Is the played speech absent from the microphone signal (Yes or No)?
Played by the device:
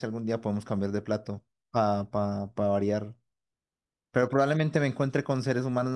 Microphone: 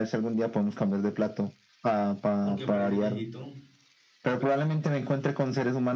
No